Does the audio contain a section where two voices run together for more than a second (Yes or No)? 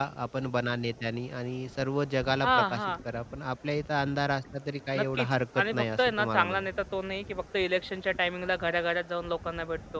Yes